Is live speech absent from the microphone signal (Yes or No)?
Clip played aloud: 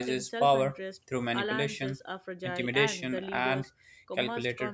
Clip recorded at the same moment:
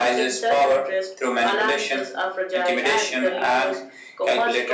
Yes